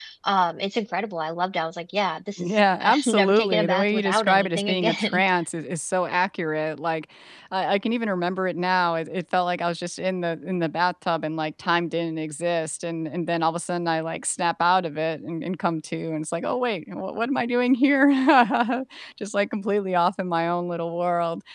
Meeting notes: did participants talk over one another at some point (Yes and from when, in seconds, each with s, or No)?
Yes, from 2.4 s